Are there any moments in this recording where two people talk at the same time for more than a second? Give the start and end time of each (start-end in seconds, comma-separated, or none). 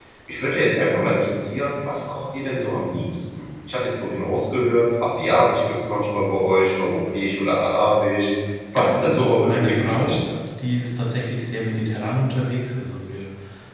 8.7-10.2